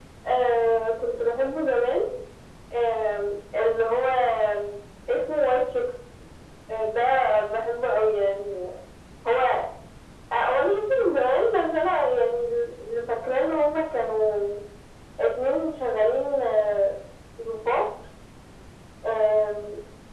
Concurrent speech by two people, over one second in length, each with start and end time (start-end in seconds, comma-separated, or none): none